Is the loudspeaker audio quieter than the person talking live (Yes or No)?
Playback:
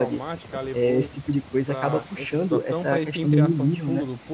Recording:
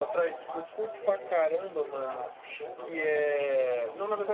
Yes